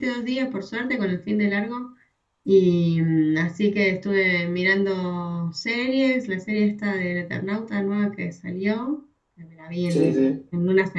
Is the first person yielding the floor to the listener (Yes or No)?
No